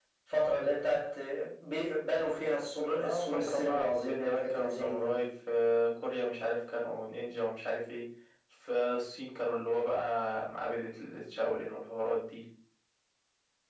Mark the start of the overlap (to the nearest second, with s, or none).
3 s